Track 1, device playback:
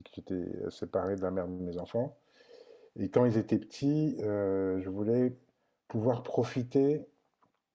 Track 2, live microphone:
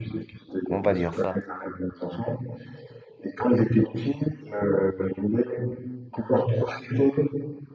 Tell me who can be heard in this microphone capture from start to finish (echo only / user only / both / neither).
both